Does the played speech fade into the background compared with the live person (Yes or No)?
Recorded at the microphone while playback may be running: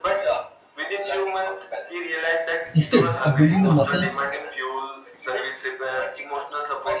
Yes